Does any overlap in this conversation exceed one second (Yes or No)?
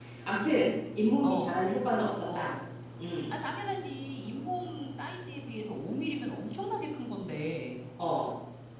No